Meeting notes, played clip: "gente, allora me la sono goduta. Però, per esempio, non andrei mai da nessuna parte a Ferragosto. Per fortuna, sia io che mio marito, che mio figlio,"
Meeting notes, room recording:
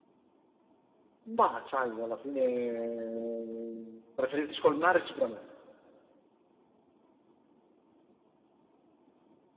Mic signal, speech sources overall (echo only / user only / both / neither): user only